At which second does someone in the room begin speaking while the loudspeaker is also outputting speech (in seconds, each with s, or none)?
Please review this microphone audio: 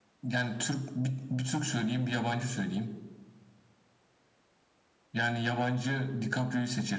none